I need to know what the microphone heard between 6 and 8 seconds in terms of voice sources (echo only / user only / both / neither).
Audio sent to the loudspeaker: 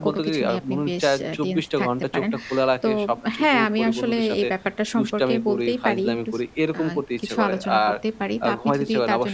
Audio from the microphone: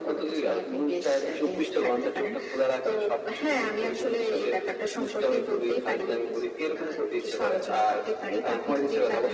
echo only